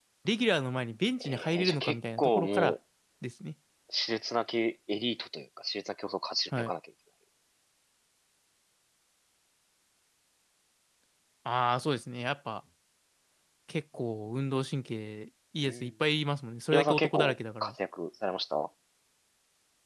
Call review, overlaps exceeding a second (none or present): present